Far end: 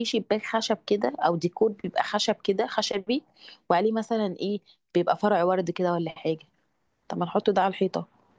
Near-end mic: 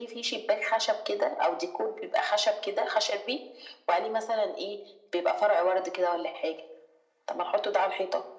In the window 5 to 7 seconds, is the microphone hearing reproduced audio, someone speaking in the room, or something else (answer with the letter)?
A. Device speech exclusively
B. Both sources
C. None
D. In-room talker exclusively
A